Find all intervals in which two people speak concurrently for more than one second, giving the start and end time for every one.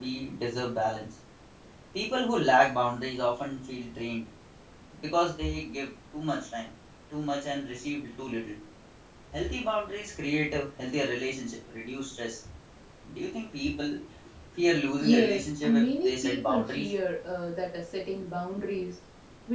15.0-16.9

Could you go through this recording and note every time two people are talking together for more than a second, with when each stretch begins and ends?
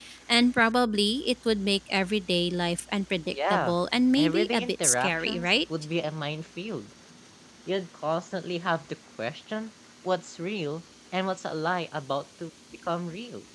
4.2-5.5

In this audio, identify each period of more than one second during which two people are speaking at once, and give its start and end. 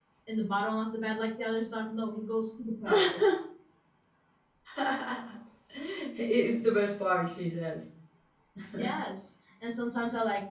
none

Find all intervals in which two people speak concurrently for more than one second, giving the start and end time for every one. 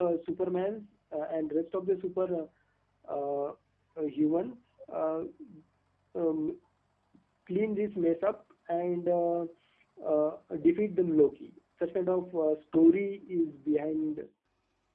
none

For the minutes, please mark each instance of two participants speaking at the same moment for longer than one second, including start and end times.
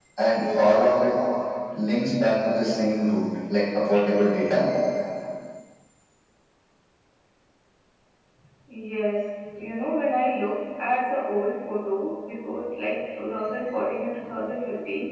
none

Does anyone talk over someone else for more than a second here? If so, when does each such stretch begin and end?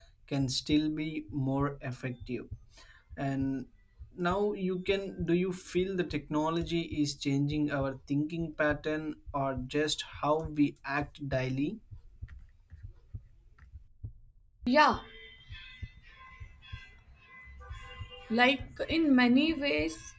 none

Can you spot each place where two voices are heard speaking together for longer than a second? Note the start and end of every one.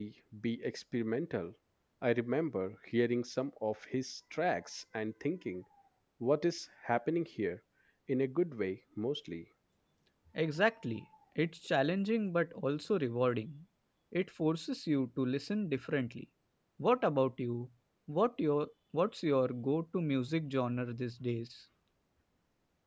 none

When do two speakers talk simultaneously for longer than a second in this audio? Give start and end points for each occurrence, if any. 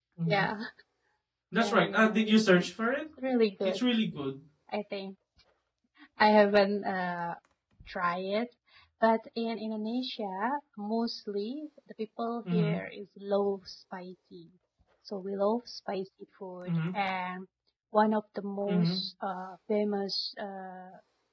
1.6-2.9

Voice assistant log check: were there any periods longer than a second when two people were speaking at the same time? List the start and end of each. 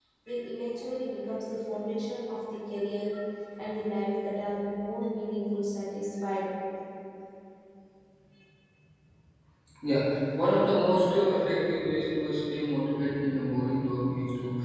none

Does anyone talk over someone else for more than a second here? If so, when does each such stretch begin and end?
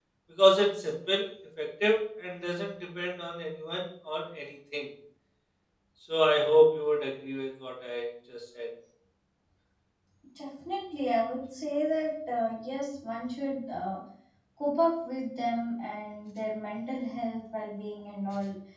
none

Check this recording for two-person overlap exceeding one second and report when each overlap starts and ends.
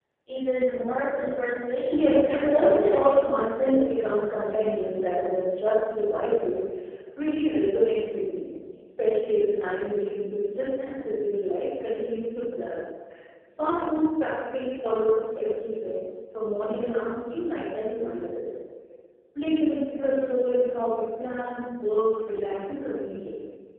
1.9-3.8

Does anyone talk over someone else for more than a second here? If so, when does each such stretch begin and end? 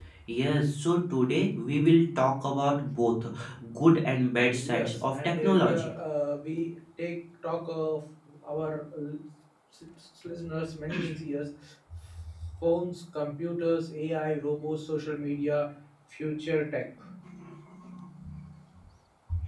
4.5-5.9

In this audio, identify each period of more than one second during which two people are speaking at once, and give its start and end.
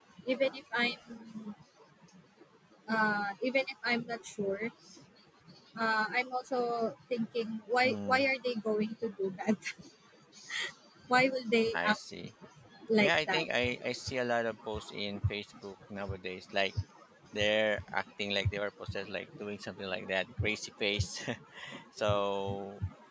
none

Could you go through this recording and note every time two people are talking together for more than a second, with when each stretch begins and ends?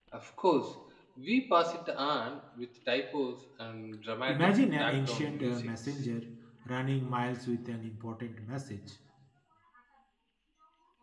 4.3-6.0

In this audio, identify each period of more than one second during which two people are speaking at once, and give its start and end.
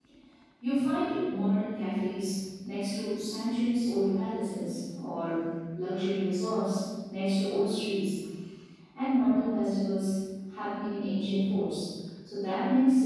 none

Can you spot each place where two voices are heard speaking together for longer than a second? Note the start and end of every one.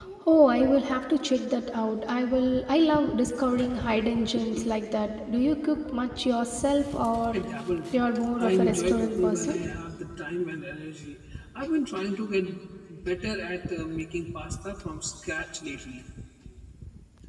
8.4-9.6

